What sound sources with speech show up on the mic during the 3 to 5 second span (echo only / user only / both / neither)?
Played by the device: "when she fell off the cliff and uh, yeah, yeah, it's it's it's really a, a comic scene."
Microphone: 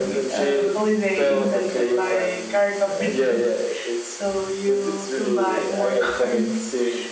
both